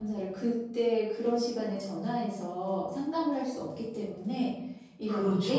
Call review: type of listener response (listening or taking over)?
listening